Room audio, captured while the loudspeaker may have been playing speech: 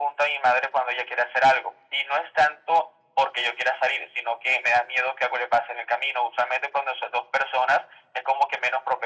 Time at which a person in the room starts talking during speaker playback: none

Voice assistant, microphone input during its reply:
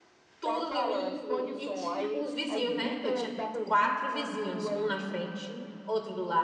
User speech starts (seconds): 0.4 s

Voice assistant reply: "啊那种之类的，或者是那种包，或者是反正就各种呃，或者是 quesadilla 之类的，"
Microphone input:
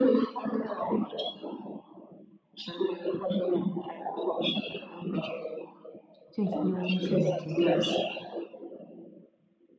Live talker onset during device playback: 6.3 s

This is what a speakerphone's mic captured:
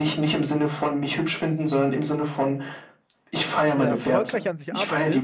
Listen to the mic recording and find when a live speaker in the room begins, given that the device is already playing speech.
3.7 s

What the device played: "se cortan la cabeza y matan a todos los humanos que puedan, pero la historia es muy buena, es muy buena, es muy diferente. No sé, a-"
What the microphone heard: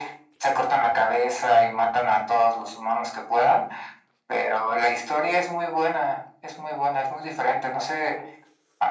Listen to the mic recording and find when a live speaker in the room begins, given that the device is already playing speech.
none

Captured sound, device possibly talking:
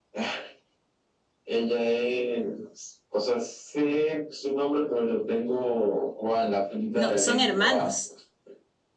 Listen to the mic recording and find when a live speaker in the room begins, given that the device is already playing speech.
6.9 s

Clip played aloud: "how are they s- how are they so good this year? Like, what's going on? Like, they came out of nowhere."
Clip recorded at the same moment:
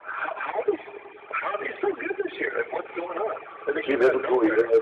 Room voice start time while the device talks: 3.7 s

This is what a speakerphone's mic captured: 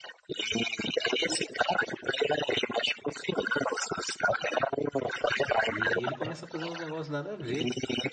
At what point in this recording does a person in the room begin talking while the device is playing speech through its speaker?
5.6 s

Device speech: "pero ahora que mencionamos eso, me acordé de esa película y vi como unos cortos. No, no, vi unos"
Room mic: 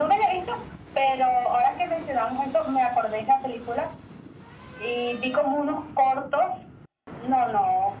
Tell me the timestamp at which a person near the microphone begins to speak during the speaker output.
none

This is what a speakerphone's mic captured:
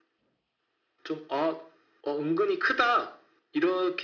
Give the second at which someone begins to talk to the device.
none

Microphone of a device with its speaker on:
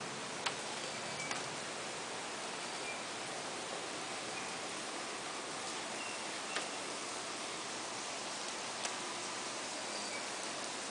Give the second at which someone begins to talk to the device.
none

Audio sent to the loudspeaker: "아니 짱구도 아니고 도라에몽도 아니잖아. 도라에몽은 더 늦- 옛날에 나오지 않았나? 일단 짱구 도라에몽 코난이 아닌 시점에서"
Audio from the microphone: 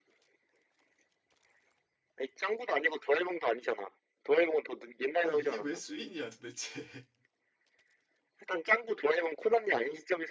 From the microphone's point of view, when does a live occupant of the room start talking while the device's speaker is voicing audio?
5.2 s

